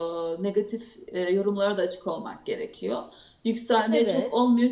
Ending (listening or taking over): listening